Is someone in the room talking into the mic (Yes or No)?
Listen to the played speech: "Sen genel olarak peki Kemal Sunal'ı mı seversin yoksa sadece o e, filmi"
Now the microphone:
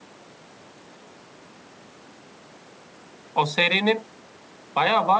Yes